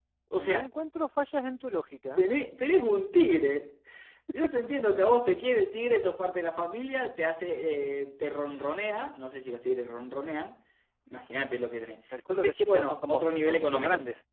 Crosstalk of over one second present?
Yes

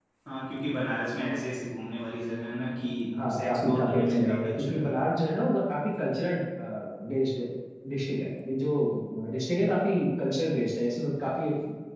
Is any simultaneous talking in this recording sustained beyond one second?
Yes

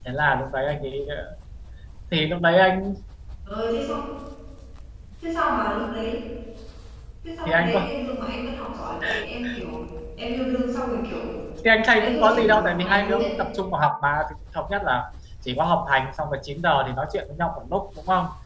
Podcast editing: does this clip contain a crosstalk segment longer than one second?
Yes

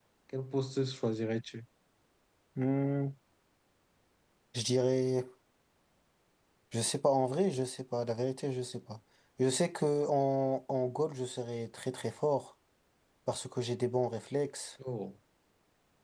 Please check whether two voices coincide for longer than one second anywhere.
No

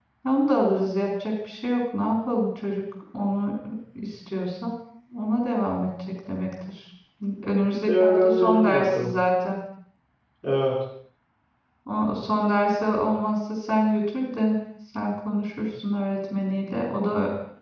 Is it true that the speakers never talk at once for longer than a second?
No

